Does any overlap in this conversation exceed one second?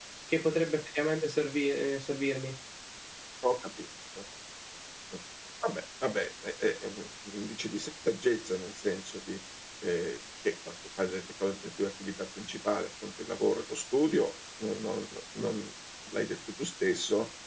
No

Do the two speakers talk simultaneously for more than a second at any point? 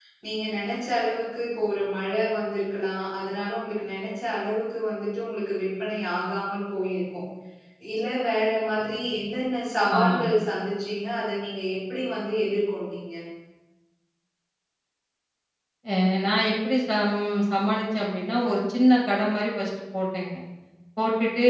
No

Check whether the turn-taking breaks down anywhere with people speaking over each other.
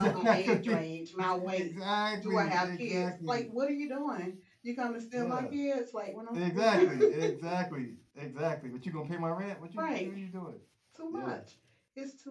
Yes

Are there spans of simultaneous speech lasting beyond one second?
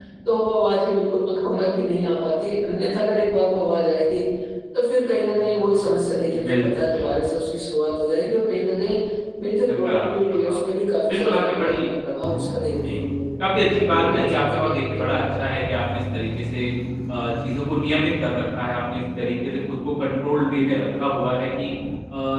Yes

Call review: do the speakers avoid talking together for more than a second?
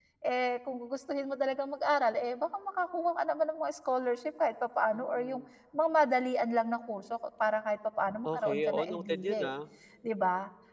No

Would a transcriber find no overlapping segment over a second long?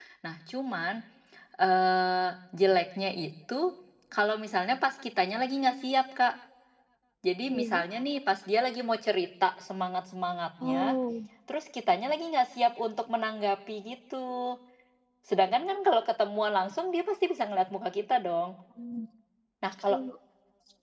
Yes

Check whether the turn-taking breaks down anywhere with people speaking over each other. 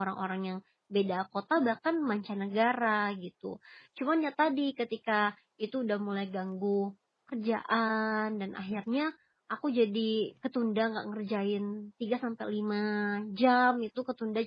No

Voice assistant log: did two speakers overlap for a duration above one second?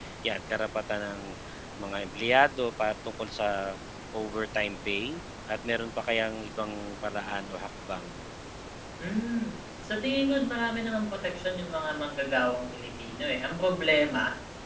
No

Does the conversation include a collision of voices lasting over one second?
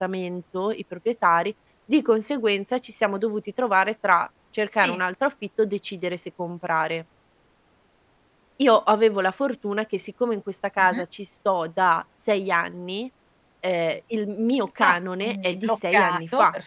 Yes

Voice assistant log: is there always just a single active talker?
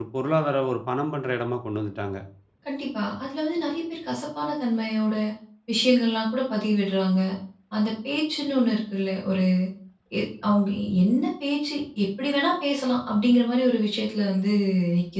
Yes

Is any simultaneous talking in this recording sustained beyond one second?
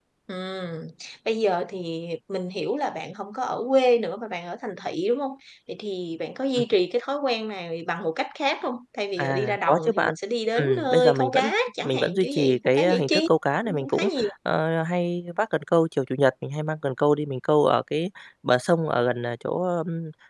Yes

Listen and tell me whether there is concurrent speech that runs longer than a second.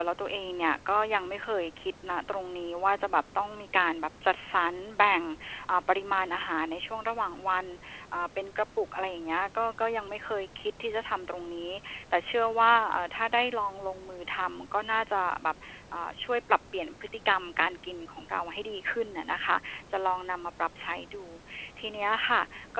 No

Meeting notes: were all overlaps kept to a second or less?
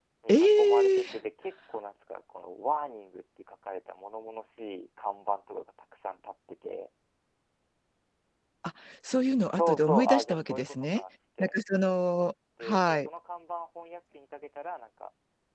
No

